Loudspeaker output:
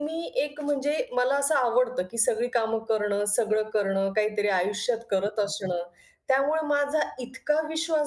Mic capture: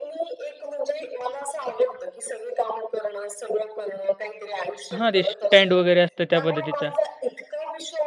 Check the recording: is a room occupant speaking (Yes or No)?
Yes